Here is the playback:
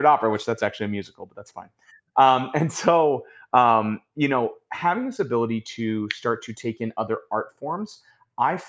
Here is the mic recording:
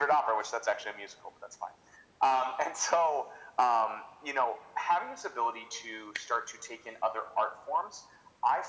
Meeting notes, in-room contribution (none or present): none